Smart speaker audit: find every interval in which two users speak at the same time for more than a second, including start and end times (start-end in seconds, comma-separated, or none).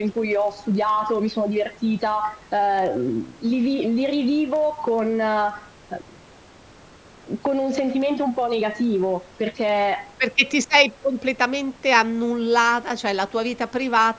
none